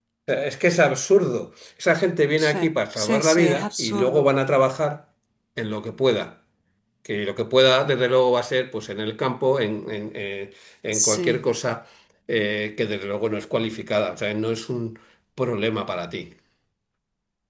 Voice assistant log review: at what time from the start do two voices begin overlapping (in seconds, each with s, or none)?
2.4 s